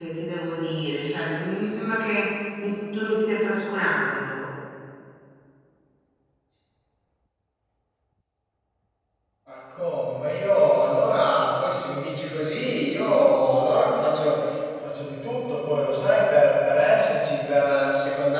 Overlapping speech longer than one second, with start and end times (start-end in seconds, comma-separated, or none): none